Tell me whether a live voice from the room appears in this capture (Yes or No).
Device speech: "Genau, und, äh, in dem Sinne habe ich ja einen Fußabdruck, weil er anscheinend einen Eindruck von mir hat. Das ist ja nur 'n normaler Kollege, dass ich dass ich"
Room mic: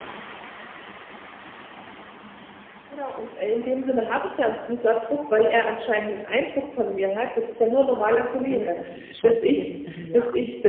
Yes